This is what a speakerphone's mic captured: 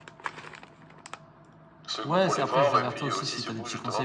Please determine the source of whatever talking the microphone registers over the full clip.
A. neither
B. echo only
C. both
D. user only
C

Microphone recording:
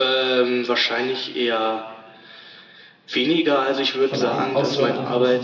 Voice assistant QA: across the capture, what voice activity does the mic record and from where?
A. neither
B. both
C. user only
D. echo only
B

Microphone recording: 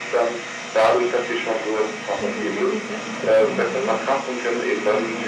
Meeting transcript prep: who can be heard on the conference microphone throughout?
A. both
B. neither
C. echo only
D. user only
A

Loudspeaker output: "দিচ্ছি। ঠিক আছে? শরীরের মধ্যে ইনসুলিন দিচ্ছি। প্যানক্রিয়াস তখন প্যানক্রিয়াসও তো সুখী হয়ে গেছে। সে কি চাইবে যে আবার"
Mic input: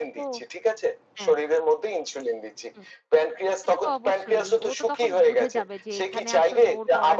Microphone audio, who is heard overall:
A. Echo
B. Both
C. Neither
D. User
B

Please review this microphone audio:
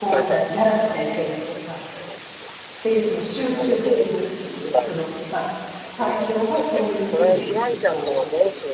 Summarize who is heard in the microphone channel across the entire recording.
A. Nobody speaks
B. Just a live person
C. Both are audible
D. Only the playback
C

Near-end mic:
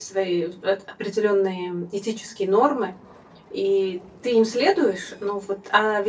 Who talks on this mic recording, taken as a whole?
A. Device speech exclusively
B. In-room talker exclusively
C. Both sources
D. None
B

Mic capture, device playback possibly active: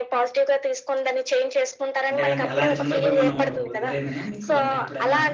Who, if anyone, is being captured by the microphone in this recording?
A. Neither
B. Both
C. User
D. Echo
B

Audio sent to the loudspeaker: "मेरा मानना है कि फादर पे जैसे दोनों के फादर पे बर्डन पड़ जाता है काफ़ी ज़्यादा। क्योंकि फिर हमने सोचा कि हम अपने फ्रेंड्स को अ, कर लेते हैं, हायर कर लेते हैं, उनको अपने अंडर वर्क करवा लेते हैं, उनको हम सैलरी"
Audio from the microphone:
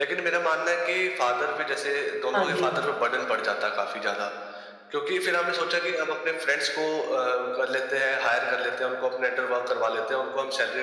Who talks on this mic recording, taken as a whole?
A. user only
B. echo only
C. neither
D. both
D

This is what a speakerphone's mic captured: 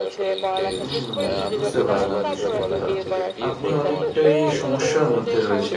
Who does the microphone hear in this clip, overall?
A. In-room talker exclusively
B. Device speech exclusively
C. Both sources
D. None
C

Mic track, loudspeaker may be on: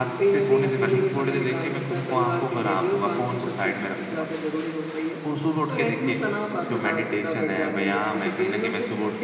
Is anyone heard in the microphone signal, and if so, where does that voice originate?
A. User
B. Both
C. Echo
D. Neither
C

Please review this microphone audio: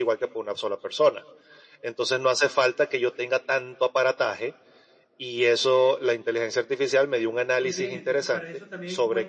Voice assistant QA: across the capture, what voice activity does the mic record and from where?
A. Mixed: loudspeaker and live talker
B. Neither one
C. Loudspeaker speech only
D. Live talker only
A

